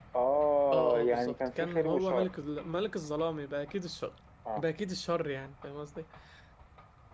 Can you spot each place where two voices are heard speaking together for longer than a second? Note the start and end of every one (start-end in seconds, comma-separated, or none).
0.7-2.3